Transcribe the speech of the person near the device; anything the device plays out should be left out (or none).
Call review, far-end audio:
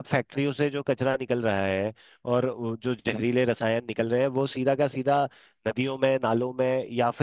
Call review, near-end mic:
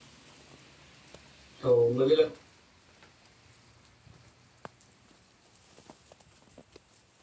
तो मुझे लग